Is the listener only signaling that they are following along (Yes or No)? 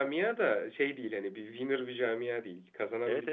No